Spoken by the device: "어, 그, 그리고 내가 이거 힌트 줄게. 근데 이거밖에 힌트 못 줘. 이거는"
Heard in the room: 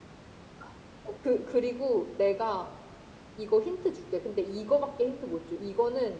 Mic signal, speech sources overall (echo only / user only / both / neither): echo only